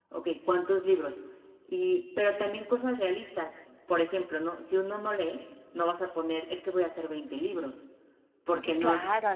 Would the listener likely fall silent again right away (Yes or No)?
No